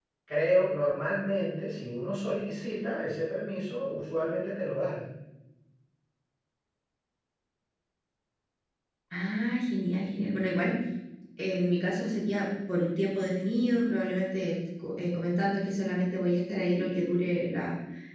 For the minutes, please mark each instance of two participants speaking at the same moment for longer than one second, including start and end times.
none

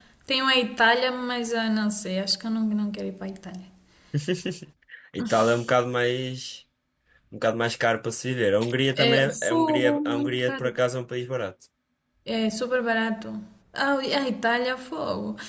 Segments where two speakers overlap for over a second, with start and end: 9.0-10.7

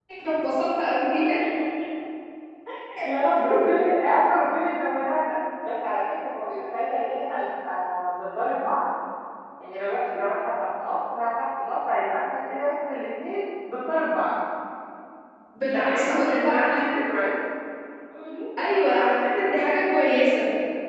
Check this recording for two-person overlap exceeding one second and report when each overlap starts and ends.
15.7-17.0

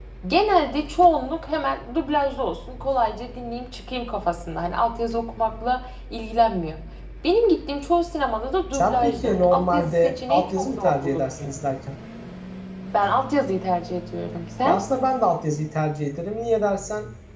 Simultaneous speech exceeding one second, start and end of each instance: 8.7-11.5

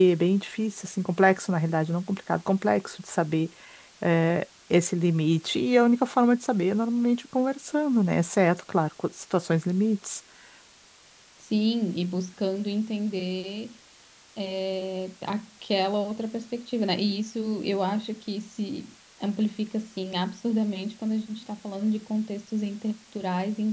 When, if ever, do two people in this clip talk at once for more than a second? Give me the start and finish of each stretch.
none

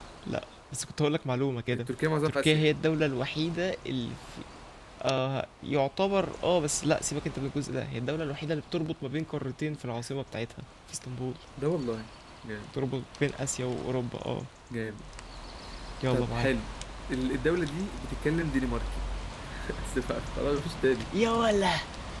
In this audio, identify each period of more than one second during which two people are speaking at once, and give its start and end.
none

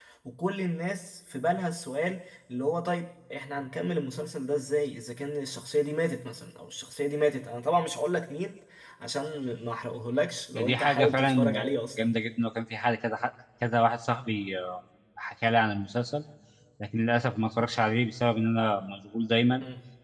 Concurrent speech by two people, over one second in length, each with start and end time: 10.5-12.1

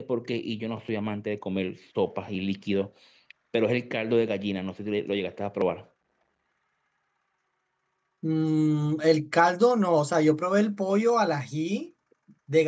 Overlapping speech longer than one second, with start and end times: none

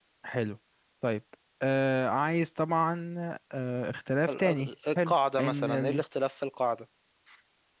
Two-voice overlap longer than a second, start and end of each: 4.3-6.0

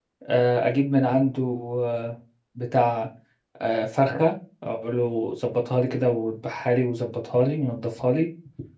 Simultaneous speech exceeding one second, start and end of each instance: none

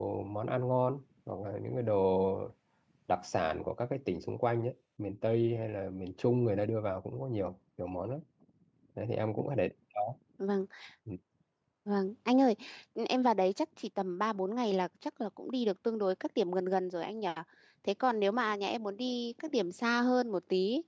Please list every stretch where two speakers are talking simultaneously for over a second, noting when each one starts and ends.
none

